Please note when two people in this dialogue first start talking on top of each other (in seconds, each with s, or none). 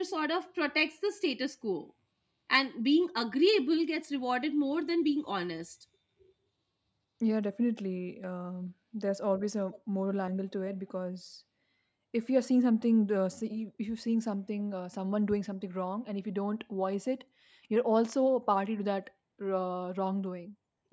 none